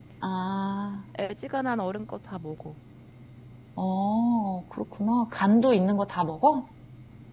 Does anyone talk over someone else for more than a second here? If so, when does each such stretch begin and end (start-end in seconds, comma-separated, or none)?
none